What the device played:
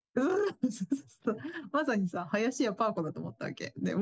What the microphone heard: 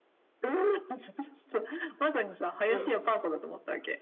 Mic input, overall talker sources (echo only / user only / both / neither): both